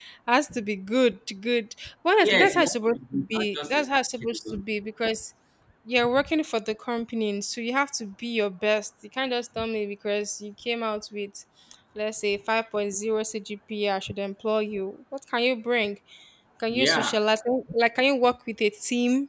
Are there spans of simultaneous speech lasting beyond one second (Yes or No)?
Yes